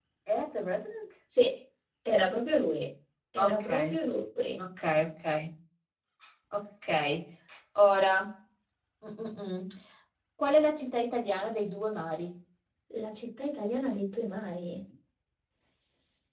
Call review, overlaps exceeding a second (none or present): none